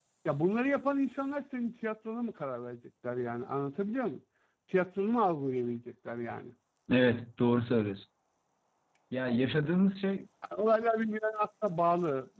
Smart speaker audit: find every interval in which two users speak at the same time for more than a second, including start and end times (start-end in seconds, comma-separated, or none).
none